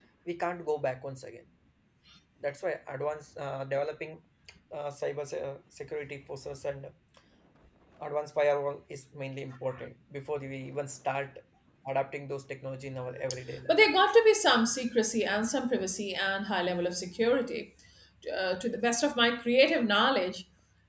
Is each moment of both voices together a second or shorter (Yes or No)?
Yes